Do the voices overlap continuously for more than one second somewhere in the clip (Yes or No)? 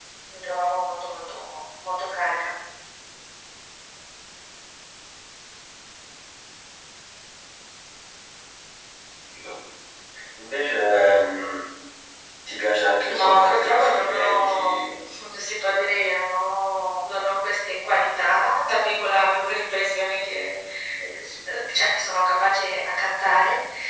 Yes